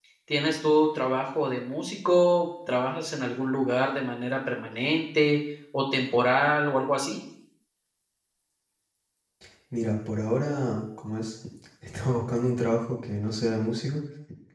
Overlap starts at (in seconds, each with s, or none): none